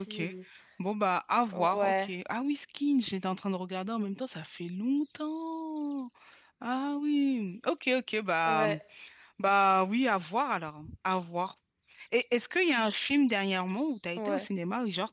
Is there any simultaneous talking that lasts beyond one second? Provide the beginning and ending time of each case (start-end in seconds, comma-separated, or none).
none